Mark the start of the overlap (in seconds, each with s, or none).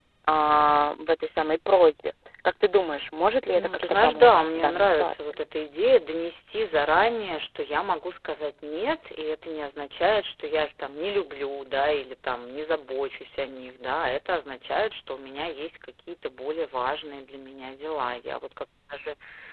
3.5 s